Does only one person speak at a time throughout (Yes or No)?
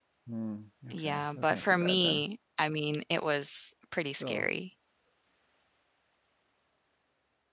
No